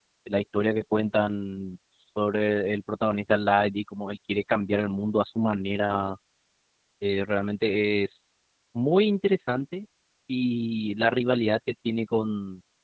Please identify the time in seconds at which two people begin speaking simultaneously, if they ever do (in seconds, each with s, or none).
none